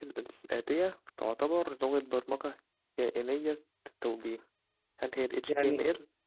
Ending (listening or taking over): taking over